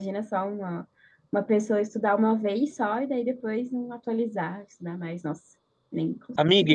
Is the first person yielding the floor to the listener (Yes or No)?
Yes